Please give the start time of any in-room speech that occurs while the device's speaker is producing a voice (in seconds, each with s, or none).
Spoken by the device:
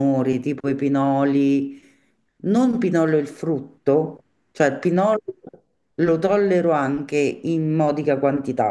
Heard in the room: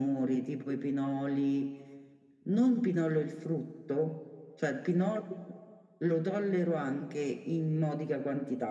none